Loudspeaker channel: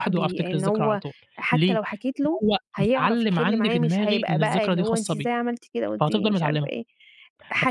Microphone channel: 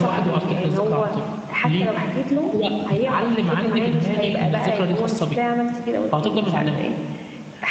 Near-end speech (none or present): none